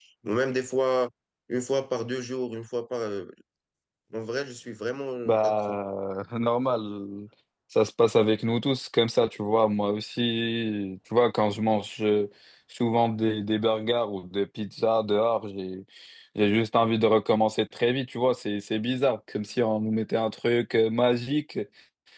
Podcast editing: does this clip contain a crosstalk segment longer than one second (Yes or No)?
No